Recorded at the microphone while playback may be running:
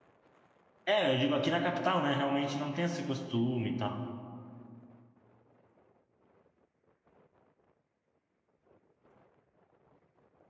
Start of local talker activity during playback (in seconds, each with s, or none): 0.8 s